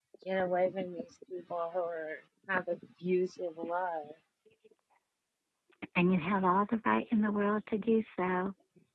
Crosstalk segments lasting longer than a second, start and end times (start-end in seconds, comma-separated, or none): none